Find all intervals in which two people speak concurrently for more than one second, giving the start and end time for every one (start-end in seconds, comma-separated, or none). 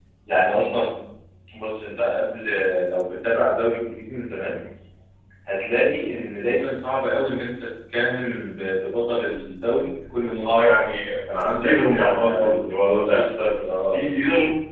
11.4-13.2